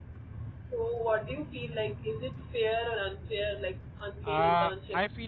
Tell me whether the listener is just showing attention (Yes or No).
No